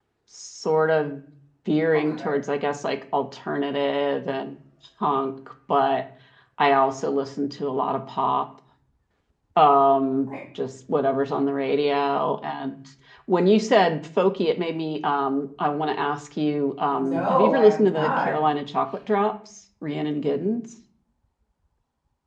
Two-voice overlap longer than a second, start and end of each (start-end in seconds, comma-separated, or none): 16.9-18.3